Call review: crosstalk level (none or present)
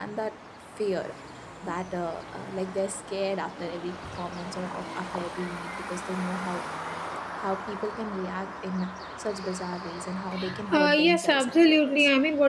present